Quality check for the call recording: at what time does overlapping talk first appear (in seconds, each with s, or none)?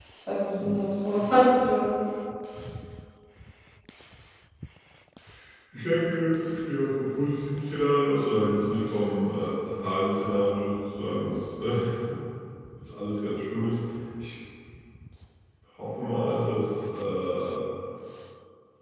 none